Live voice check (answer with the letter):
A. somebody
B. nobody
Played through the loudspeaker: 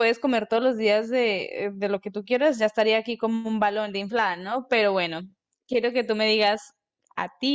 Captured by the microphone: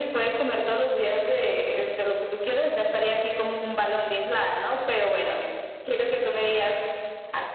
B